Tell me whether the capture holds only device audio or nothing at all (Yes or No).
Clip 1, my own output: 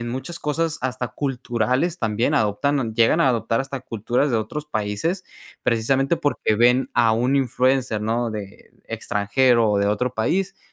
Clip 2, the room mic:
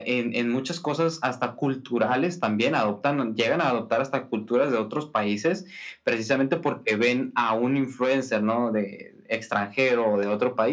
Yes